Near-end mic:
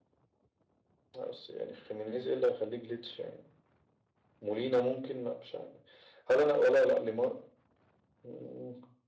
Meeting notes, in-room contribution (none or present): none